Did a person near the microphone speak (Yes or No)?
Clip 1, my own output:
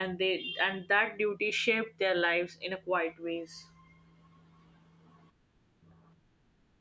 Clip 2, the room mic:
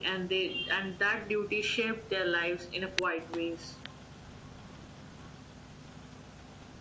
No